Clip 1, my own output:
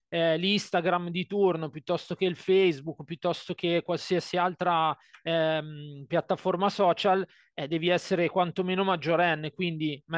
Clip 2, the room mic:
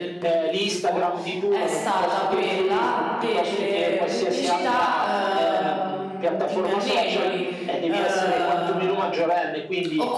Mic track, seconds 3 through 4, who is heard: both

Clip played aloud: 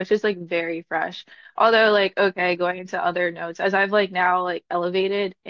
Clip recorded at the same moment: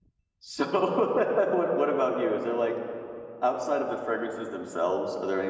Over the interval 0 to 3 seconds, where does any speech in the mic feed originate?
user only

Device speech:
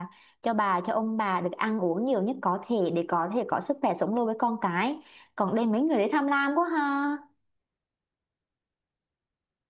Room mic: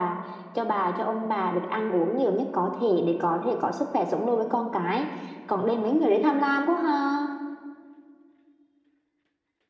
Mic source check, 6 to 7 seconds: echo only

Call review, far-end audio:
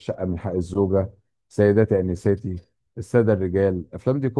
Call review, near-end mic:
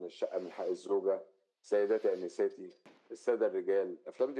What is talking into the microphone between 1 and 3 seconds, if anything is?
echo only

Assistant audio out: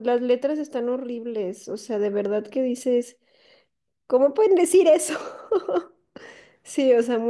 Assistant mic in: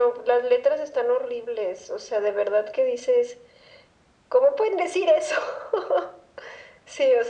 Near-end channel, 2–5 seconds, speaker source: echo only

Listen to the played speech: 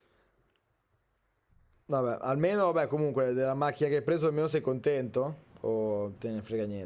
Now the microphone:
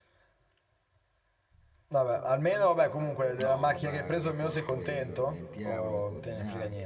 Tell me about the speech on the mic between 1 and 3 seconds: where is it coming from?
echo only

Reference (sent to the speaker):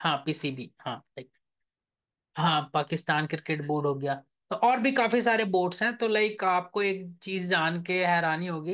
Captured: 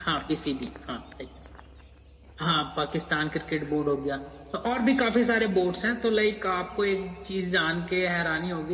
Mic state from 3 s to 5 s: echo only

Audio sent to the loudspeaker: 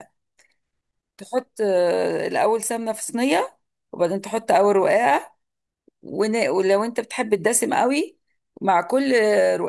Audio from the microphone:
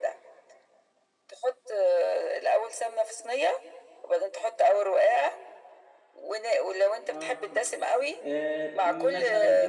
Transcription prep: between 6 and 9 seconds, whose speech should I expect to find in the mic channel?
both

